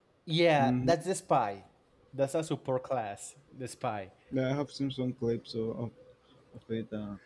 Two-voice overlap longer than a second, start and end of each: none

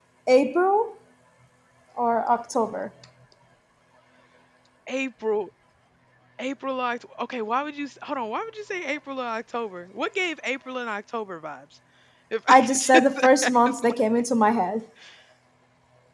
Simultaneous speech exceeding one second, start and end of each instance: 12.5-13.9

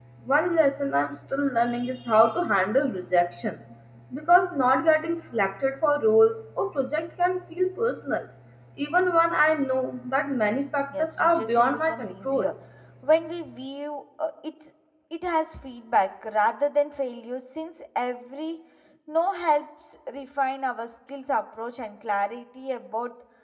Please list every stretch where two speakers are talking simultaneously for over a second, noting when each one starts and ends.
10.9-12.5

